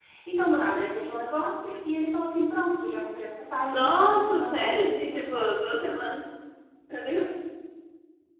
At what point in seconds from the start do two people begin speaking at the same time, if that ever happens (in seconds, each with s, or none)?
3.7 s